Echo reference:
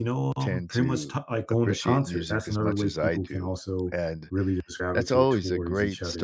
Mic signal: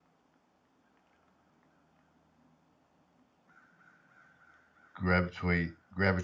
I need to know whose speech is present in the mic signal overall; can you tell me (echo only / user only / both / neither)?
user only